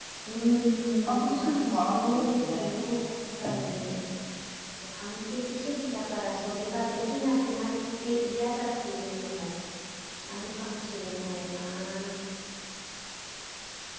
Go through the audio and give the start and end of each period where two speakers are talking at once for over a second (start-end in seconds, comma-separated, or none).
1.0-2.7